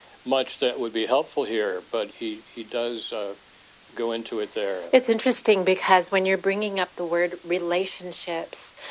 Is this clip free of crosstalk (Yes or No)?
Yes